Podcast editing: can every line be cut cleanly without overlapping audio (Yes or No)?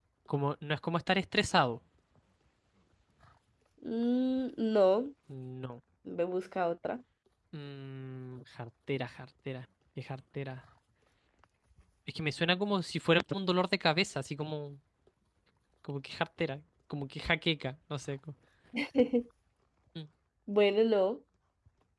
Yes